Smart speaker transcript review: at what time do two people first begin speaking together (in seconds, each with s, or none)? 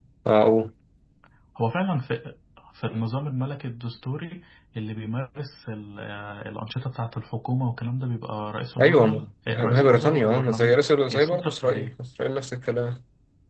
8.8 s